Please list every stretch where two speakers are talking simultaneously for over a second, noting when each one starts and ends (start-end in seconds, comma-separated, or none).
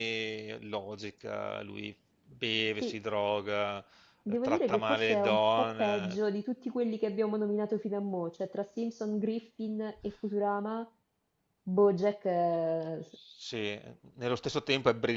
4.4-6.2